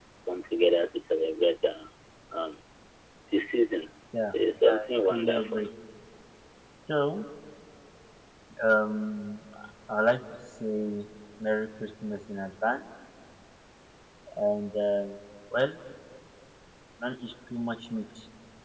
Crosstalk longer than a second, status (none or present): present